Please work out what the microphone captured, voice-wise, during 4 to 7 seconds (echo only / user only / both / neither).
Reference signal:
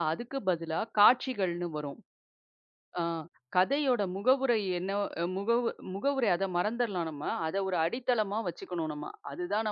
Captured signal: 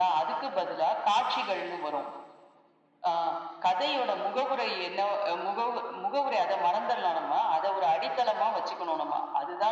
echo only